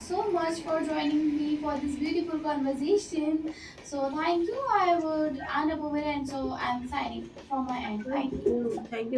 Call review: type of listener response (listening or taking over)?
taking over